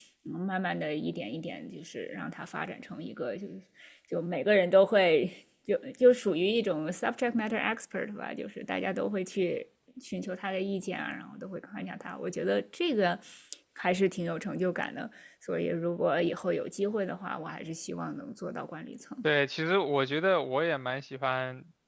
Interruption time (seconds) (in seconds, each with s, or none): none